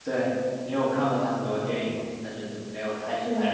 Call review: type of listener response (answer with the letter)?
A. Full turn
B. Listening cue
A